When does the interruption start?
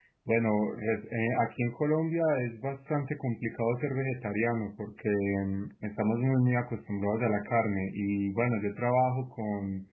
none

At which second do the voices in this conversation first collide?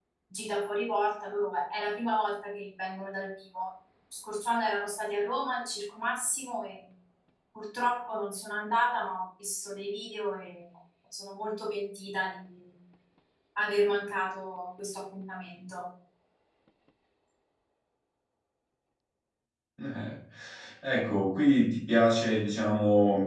none

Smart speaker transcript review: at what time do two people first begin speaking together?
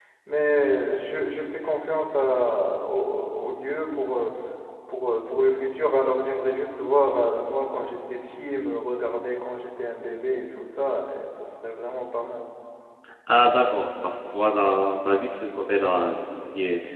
none

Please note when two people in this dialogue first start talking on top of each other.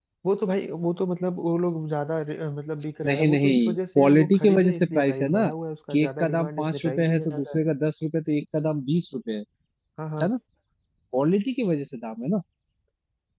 3.1 s

